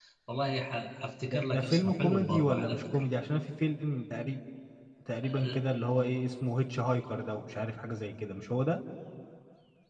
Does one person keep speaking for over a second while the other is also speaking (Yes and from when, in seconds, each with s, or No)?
Yes, from 1.3 s